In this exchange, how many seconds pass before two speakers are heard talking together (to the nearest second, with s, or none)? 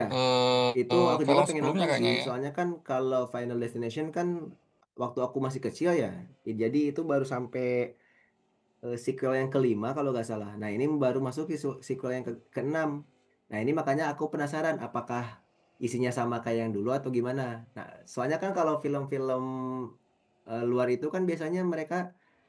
1 s